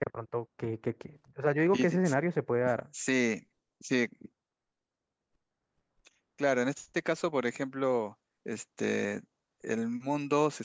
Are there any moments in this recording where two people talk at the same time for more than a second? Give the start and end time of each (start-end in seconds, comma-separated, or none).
none